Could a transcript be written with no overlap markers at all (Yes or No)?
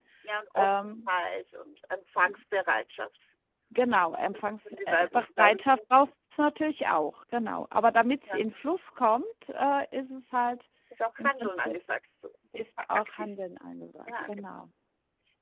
No